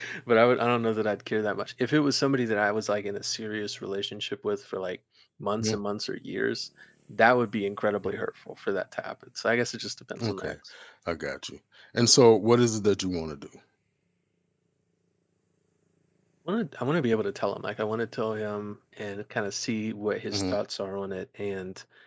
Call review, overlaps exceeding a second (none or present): none